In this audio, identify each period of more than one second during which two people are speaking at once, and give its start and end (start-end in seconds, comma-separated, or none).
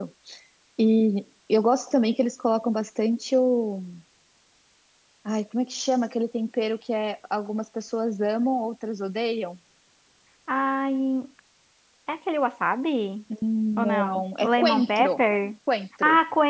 13.8-15.2